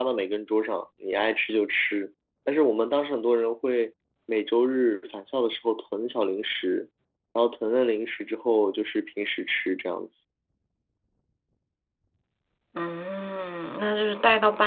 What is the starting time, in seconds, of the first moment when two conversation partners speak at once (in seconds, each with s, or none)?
none